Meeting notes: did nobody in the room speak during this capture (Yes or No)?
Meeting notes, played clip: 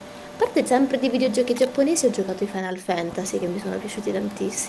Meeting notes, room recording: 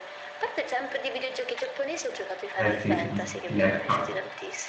No